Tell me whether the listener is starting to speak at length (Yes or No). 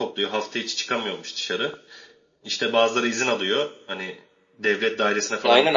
Yes